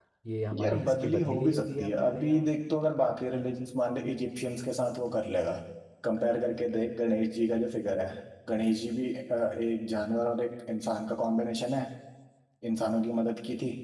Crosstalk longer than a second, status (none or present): present